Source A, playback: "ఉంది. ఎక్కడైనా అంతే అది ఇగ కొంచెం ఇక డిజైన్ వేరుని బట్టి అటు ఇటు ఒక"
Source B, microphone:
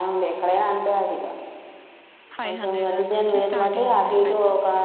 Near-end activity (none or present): present